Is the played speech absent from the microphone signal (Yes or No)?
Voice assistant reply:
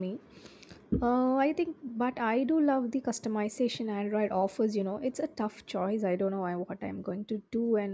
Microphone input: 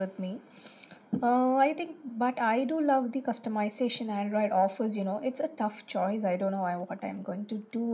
No